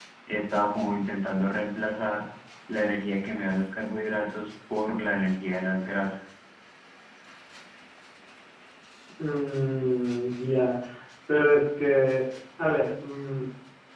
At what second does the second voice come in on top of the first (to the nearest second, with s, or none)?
none